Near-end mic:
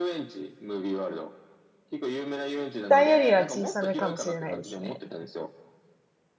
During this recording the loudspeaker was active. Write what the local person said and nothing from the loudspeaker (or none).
大よりは小さめかもしれないですね。